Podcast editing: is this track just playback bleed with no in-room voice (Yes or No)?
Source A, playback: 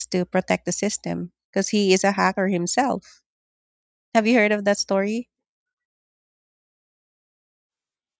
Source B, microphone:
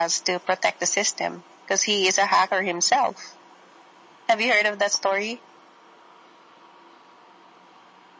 Yes